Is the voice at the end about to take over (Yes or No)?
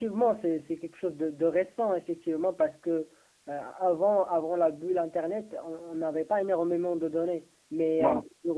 No